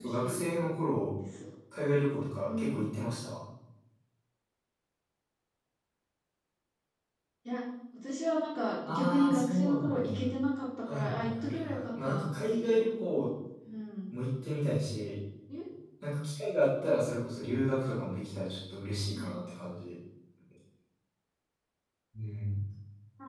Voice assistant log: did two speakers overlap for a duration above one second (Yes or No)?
Yes